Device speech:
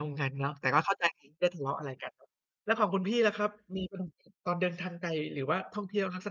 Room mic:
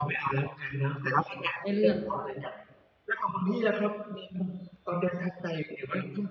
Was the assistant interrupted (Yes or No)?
Yes